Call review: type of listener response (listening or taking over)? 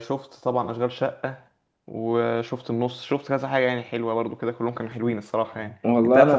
listening